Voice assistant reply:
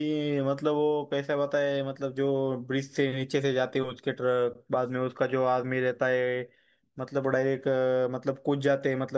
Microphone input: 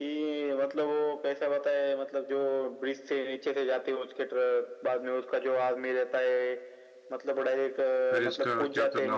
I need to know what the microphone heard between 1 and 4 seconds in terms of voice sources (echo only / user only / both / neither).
echo only